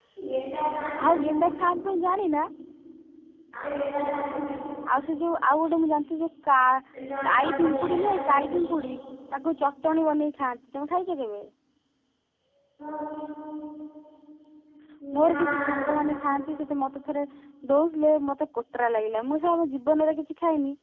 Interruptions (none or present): present